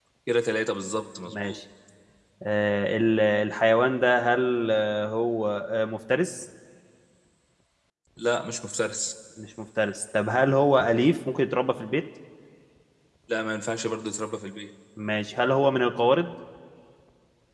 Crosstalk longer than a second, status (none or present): none